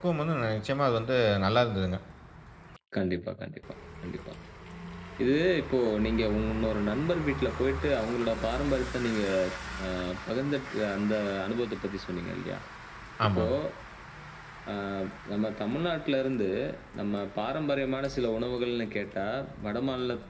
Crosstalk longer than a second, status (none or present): none